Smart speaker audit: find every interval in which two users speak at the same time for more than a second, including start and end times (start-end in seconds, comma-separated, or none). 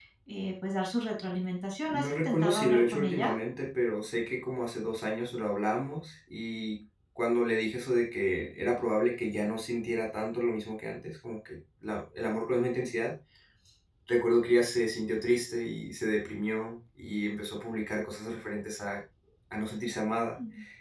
1.9-3.3